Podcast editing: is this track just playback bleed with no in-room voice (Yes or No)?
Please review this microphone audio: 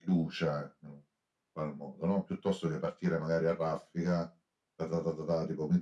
Yes